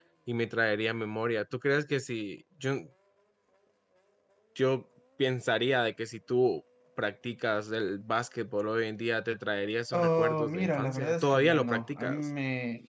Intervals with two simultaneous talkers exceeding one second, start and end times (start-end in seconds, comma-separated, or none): 9.9-12.3